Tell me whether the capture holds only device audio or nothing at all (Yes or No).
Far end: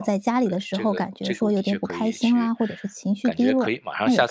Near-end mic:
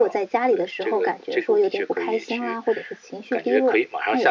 Yes